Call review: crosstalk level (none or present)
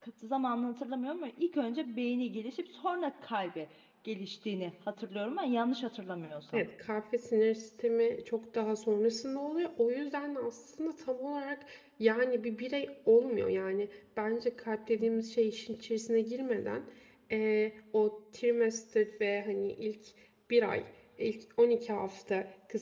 none